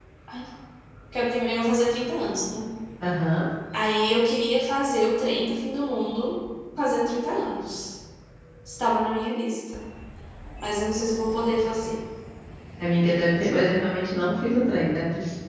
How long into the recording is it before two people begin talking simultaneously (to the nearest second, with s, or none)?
none